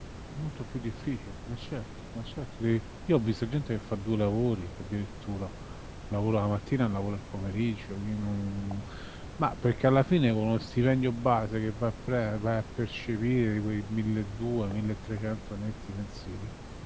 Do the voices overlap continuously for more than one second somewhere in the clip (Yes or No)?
No